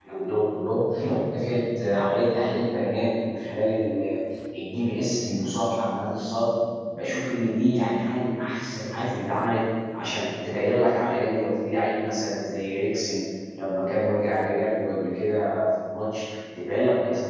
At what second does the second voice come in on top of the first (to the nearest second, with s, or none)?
none